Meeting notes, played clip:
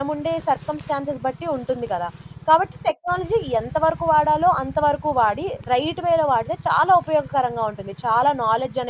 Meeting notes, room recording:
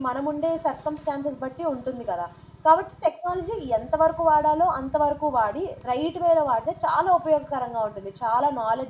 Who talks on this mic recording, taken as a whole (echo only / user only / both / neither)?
echo only